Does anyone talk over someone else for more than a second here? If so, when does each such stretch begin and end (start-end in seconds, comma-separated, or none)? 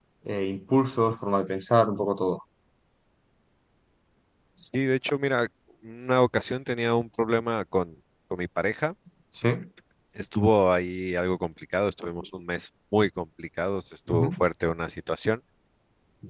none